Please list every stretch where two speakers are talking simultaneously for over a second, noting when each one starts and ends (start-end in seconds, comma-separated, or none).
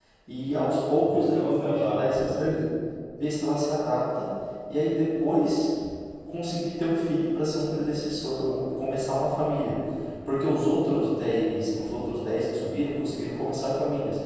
0.9-2.6